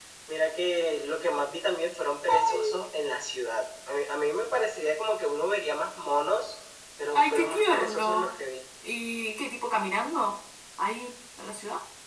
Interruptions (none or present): present